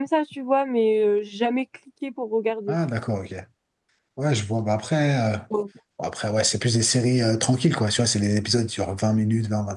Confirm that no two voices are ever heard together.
Yes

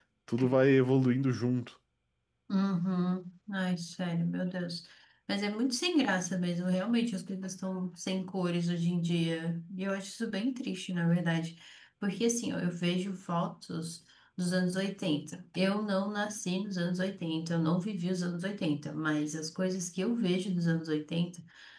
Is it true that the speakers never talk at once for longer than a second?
Yes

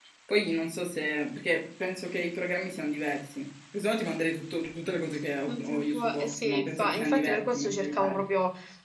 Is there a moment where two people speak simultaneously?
Yes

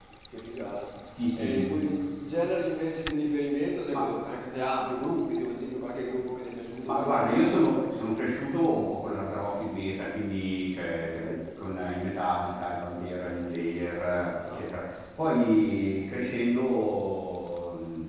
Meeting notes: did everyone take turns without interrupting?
No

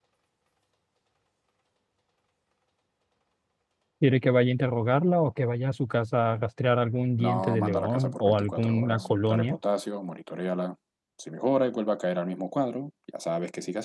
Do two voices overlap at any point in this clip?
Yes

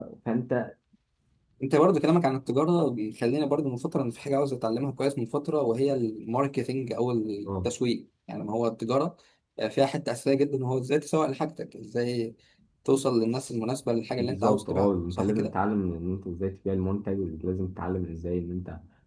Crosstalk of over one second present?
Yes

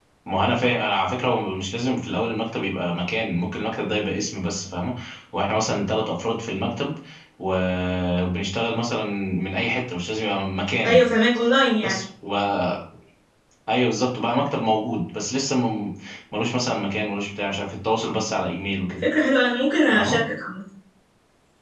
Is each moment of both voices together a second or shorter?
Yes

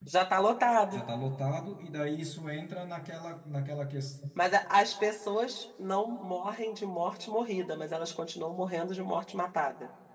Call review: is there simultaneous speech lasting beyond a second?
No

